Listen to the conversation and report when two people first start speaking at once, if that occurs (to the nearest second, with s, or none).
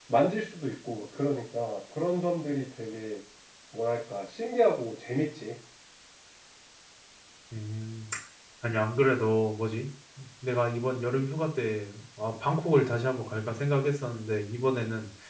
none